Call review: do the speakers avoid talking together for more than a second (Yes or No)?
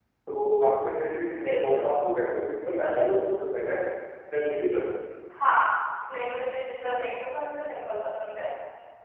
Yes